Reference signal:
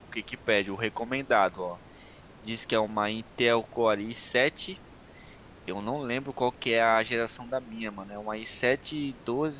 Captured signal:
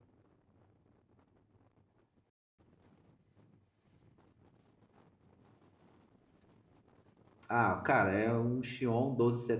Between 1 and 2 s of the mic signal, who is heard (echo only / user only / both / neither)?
neither